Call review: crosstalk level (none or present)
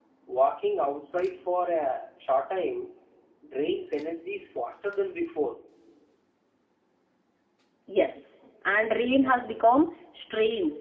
none